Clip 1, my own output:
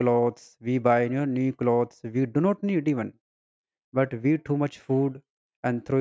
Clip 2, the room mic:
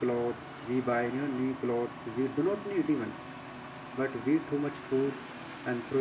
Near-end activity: none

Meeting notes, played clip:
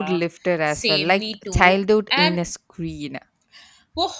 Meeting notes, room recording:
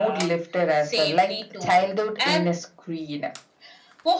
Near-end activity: none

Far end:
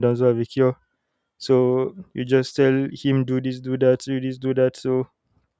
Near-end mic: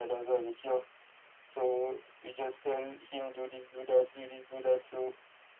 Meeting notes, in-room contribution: none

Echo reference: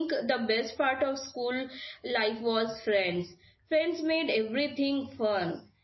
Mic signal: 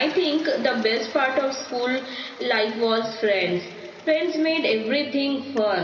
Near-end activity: none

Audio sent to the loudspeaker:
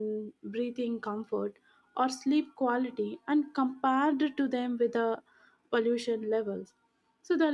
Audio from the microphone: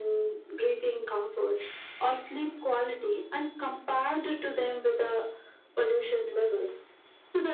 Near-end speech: none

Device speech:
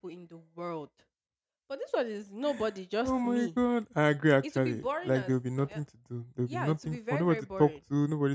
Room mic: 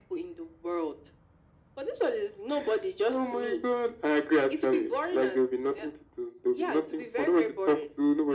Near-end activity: none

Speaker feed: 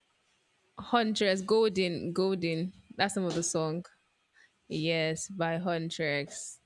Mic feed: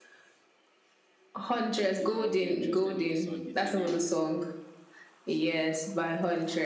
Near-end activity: present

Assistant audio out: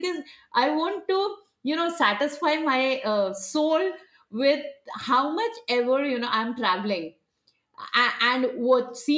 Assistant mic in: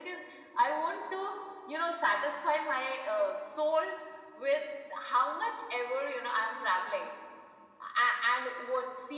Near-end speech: none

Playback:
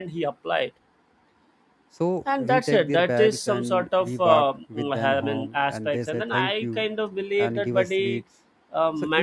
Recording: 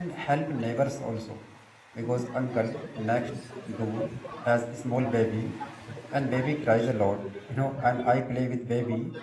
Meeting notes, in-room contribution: present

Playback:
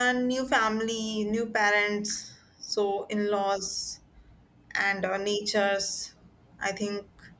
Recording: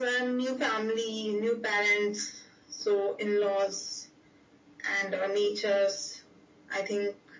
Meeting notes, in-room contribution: none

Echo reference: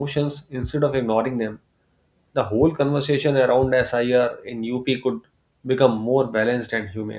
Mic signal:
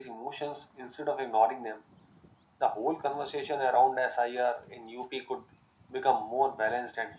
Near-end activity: none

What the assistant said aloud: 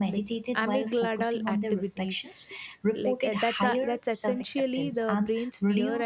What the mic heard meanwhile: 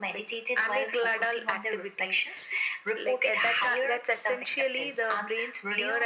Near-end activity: none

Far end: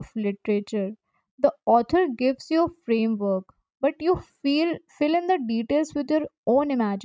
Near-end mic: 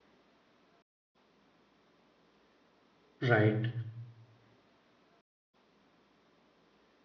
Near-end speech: present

